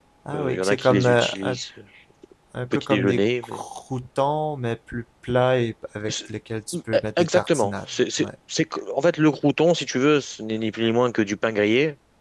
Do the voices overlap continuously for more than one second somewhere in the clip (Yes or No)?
Yes